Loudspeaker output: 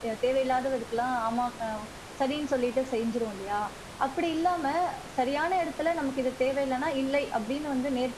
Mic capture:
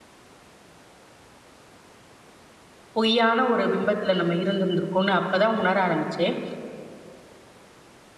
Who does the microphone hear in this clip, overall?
user only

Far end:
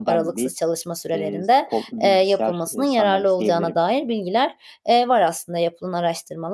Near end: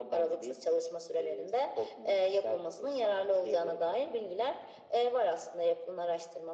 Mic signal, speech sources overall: echo only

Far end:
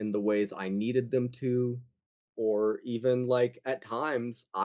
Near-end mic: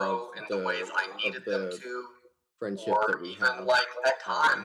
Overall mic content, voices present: both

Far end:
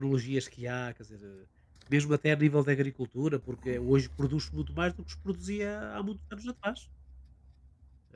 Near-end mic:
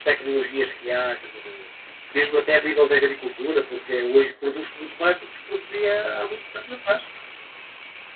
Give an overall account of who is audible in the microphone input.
echo only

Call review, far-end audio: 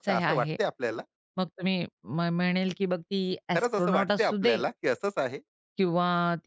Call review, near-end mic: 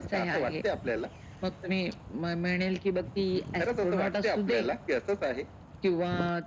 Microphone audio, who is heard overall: echo only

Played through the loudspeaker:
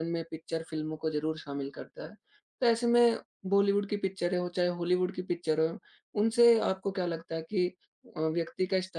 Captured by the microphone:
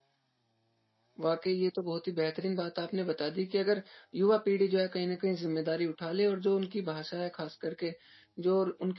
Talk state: user only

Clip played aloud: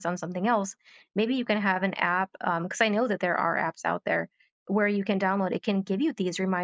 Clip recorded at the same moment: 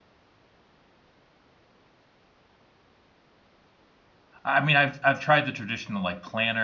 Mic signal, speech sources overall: user only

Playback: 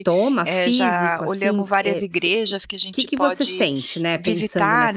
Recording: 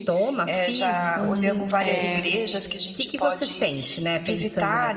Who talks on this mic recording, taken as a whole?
both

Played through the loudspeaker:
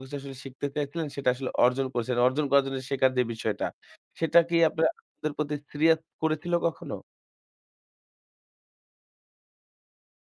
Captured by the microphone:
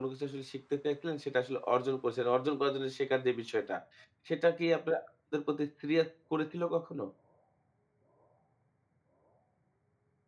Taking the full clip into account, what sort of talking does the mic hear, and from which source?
echo only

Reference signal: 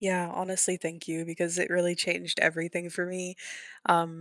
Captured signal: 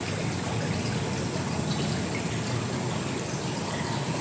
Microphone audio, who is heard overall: neither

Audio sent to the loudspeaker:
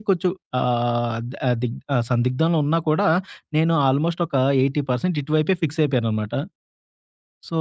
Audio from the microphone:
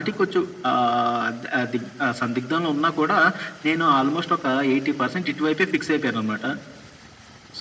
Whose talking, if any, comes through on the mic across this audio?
echo only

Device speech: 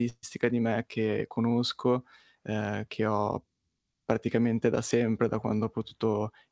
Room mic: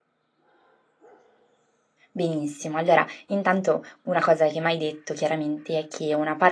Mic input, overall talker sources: user only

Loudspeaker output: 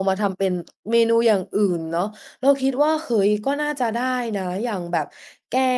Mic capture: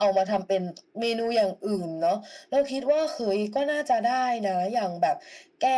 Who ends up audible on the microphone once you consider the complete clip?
echo only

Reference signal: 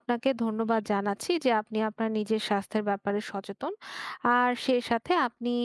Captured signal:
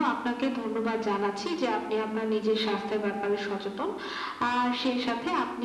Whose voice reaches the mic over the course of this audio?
echo only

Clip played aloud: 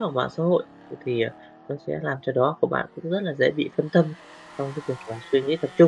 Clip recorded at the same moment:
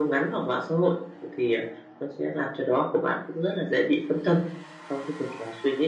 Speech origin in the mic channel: echo only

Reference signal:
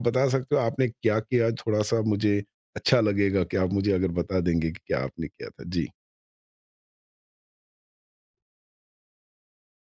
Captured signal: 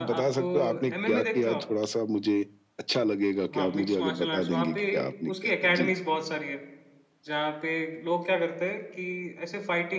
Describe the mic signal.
both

